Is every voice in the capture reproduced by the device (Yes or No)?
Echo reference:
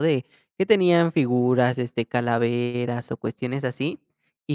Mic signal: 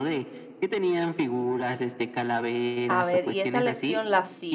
No